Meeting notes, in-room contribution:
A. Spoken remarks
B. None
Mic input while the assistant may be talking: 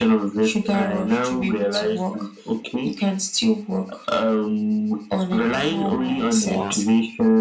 A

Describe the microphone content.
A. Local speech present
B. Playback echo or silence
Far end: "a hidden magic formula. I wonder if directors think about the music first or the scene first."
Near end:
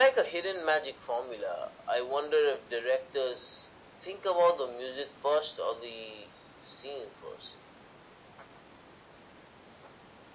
B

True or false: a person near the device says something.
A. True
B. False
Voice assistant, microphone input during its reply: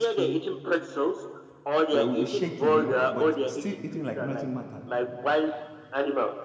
A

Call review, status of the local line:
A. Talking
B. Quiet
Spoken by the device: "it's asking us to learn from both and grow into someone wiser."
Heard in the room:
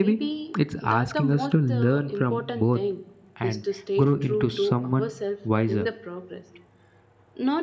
A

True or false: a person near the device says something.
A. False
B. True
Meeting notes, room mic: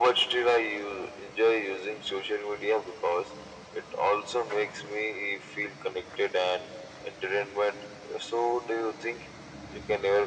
A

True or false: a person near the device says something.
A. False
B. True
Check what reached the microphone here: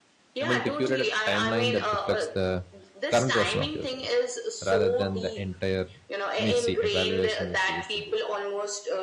B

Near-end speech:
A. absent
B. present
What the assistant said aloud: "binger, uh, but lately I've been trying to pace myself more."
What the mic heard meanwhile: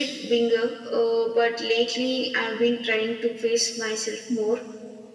A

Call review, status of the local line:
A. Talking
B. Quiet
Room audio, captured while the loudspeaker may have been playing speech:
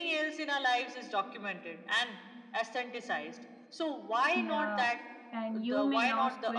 A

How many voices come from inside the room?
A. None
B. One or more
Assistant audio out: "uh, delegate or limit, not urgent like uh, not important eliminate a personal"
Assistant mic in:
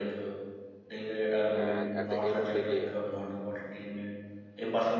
B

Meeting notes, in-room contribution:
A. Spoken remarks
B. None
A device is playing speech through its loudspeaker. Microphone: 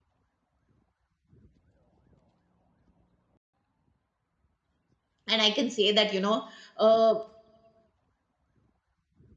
A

